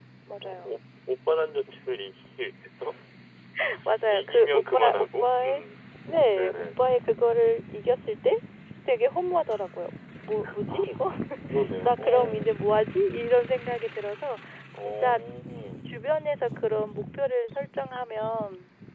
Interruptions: present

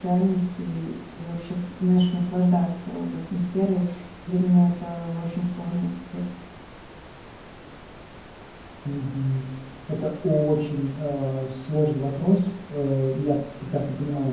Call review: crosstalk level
none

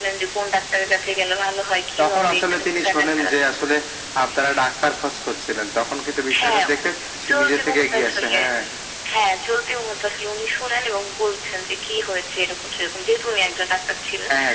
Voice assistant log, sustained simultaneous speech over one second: present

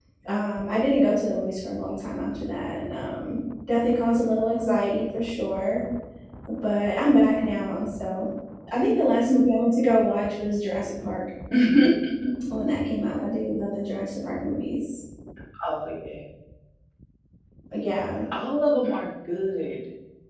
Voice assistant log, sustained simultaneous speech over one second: none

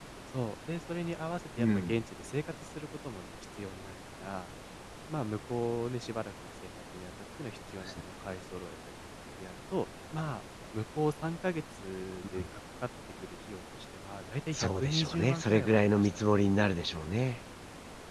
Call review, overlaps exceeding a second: present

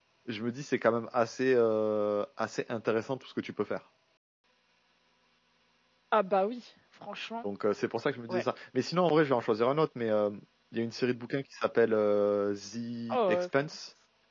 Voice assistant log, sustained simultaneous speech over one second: none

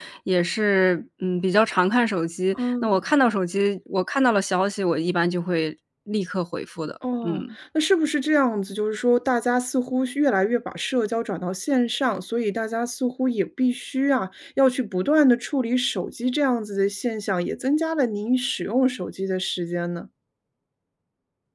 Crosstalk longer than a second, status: none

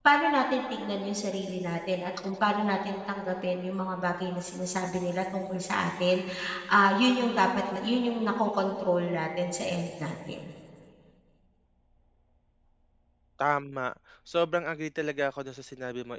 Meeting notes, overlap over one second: none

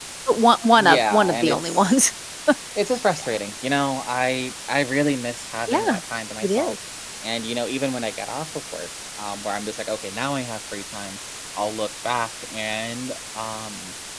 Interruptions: present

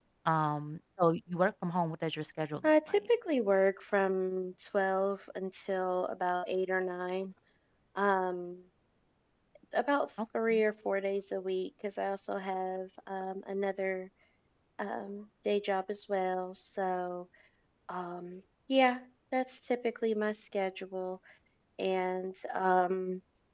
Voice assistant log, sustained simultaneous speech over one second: none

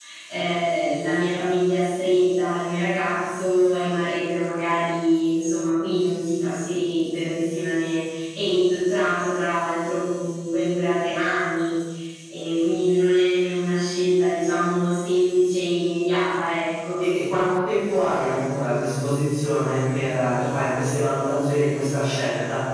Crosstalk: none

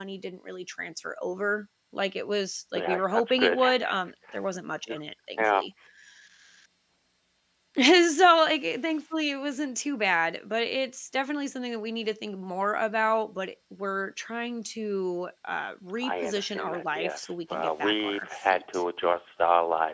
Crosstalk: present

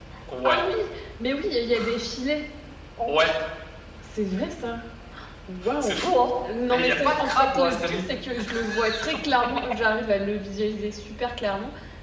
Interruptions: present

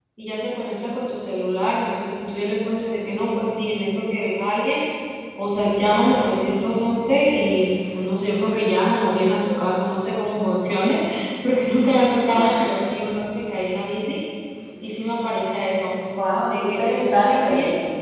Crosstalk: present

